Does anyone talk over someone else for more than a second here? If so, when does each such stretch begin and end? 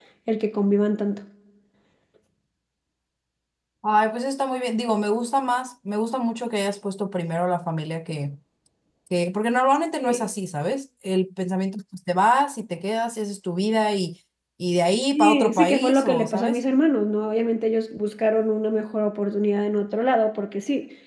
15.1-16.6

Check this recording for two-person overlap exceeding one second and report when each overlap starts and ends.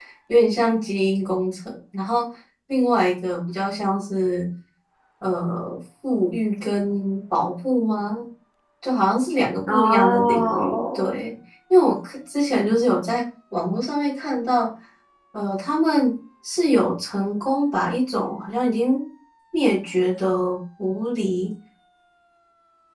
9.7-11.2

